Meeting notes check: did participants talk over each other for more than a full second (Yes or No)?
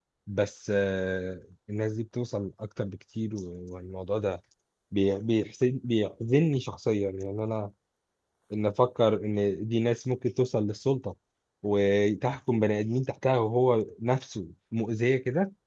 No